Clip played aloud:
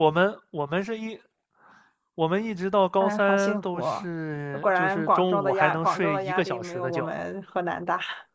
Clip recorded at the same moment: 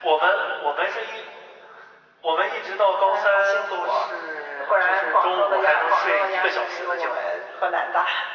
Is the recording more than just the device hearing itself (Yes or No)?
No